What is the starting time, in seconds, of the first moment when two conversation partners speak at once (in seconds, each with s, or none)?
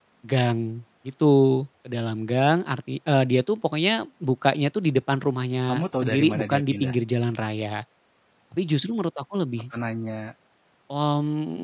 5.7 s